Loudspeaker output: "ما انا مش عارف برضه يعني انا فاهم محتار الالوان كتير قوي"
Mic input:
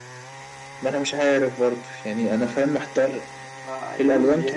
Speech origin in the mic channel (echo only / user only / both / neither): both